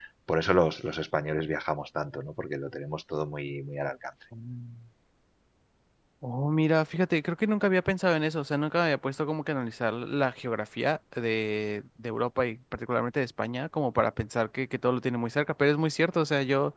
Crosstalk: none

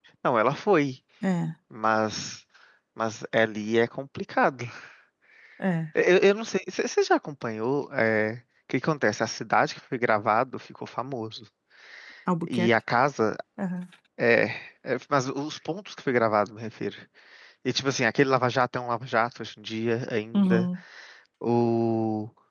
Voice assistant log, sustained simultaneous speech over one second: none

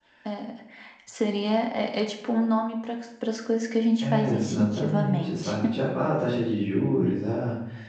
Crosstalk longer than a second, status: present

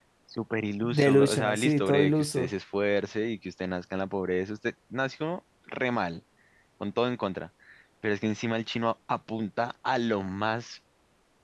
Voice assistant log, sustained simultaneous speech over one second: present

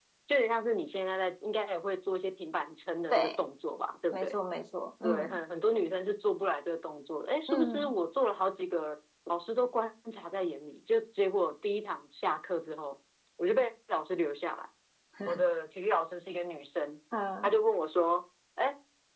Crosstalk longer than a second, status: none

